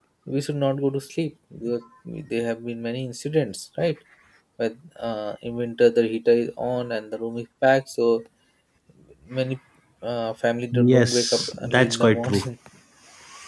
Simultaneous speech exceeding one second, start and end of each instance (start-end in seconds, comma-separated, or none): 10.7-12.4